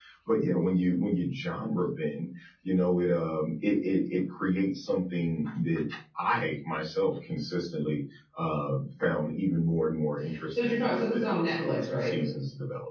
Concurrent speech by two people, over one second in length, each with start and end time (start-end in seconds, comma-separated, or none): 10.5-12.1